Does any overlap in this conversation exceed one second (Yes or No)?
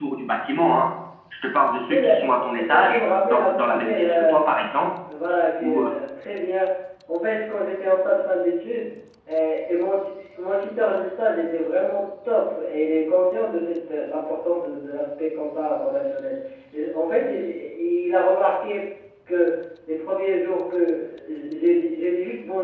Yes